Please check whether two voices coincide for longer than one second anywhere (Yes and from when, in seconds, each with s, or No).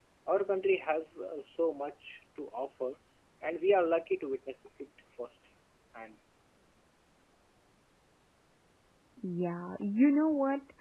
No